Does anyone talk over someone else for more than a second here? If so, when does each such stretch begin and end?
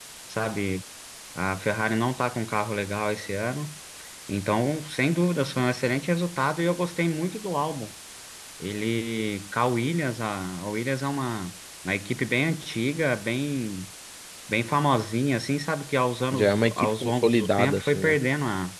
16.3-18.2

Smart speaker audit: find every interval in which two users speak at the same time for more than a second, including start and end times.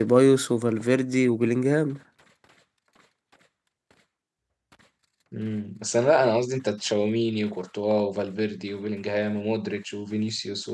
none

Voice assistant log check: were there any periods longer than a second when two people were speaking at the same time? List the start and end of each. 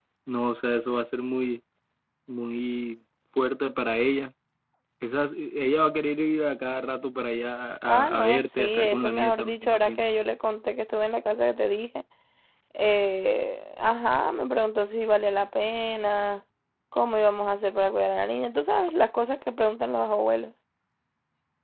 7.8-10.0

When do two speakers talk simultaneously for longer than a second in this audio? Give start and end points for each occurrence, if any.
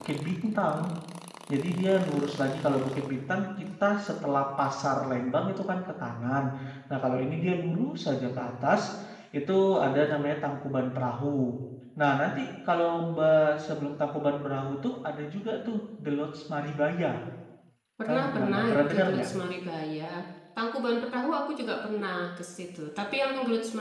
18.1-19.3

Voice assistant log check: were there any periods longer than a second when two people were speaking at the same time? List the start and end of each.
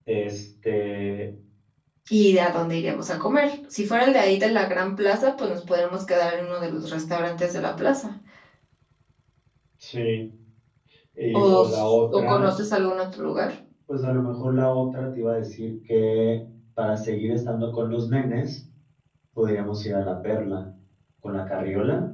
11.3-12.6

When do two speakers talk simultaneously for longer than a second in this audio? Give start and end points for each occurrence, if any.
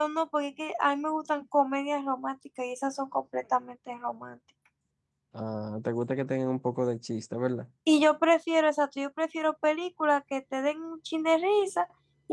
none

